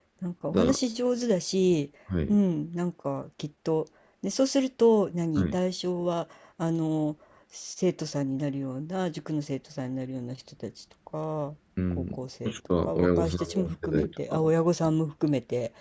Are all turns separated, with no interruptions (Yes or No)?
No